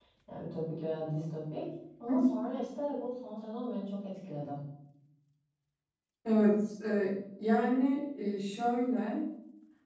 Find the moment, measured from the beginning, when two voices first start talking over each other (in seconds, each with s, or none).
none